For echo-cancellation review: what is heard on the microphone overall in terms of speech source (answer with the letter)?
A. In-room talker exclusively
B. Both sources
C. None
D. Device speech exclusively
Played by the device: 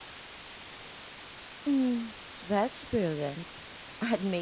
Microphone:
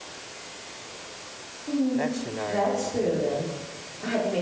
B